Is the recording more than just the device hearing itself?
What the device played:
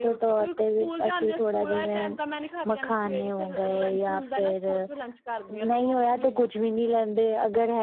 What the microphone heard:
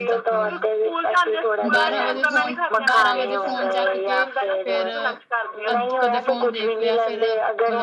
Yes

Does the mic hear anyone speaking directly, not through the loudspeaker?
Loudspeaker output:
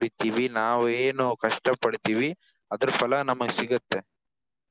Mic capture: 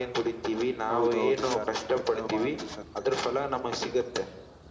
Yes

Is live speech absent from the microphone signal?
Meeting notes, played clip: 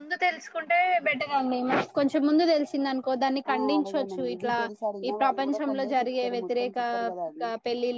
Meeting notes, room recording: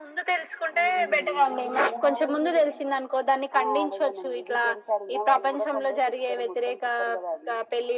No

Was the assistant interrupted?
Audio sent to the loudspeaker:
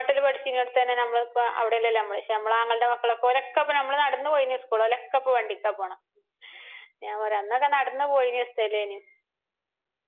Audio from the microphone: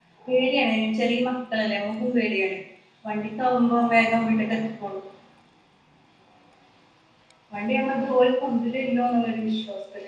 Yes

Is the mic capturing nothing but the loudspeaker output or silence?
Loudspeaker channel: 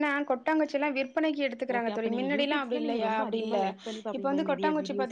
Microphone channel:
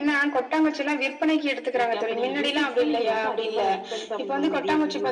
Yes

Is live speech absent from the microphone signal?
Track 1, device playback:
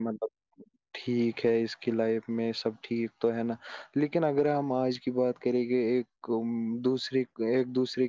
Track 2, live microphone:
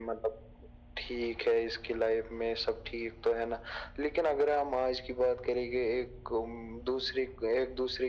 Yes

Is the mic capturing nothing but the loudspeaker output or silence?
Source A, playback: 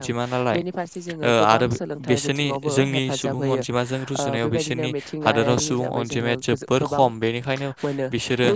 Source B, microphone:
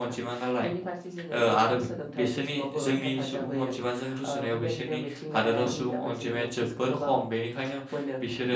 Yes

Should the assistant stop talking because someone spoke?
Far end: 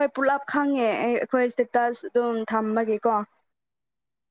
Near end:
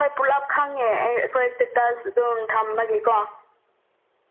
No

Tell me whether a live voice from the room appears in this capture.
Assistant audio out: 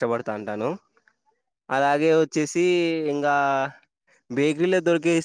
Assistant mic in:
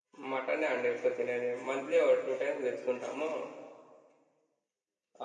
Yes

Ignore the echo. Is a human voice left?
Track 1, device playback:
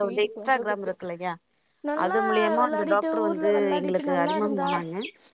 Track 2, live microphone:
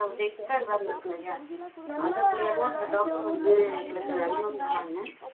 Yes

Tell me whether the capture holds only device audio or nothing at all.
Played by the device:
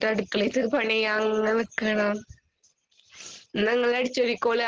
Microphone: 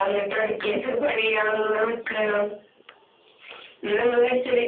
Yes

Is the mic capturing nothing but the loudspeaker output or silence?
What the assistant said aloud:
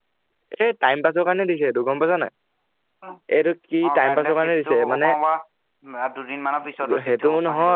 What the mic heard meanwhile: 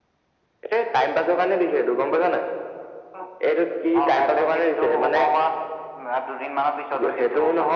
Yes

